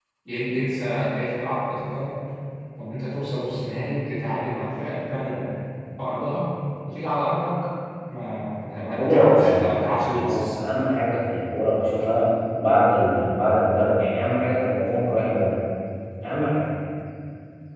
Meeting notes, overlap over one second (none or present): present